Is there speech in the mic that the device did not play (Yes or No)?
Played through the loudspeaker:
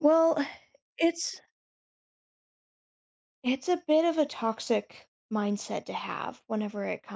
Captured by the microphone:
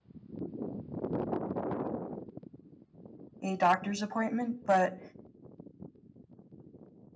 Yes